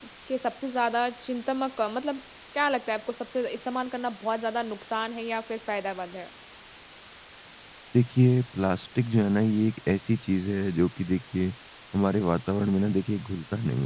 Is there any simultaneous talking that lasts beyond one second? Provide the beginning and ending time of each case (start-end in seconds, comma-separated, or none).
none